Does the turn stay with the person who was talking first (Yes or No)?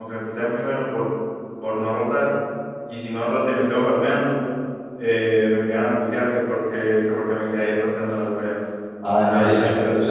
No